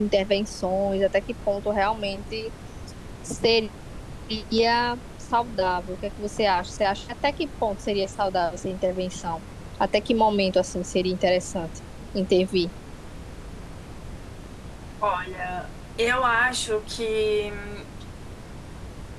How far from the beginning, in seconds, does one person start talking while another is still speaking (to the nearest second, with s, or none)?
none